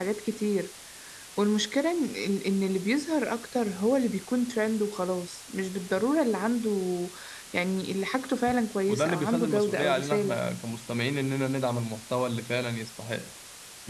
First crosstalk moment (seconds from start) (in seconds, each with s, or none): 8.9 s